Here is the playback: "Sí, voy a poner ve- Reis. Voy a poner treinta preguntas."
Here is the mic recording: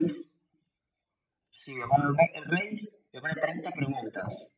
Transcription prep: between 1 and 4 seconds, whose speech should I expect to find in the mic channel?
echo only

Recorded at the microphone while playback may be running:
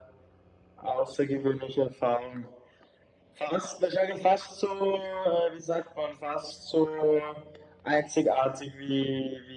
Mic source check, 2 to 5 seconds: echo only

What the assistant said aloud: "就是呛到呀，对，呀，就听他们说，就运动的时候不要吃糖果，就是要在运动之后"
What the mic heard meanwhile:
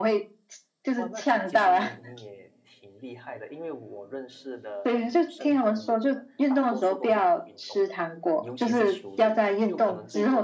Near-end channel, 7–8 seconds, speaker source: both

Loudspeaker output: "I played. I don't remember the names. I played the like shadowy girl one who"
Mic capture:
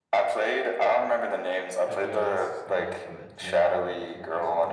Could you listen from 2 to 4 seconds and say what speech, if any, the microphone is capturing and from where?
both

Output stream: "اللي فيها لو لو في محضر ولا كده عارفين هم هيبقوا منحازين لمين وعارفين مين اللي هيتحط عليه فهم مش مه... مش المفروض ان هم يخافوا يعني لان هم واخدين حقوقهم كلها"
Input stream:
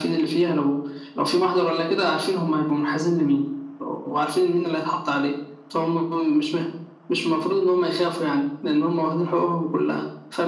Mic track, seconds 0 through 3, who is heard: echo only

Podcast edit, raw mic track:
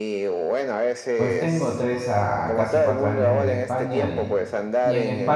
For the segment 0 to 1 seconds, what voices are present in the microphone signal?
echo only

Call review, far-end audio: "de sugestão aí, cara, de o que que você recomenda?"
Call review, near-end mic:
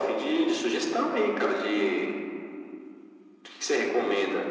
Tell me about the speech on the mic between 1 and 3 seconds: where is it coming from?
echo only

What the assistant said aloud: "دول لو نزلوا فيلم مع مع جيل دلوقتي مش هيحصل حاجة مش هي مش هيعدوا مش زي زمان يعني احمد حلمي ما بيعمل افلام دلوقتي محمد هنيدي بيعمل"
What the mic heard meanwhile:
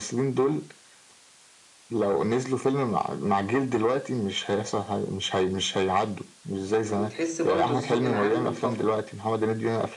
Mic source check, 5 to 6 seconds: echo only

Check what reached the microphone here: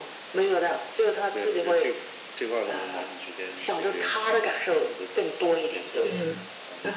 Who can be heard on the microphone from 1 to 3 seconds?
echo only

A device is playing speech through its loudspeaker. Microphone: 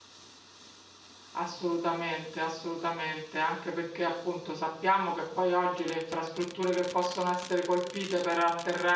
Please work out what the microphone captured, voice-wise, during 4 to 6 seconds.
user only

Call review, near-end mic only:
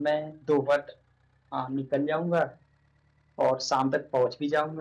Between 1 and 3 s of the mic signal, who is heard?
user only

